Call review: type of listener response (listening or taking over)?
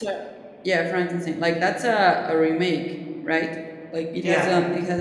listening